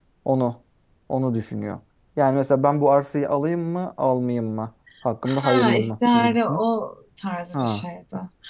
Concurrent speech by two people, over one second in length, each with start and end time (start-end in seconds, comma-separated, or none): 5.2-6.6